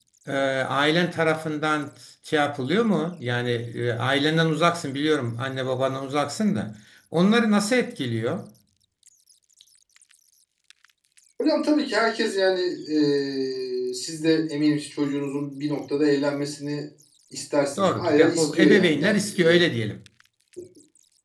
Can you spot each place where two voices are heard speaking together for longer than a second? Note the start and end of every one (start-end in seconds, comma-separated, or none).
17.8-19.6